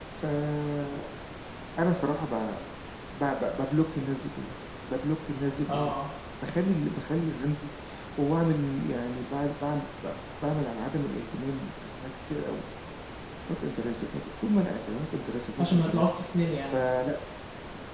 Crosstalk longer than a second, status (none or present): none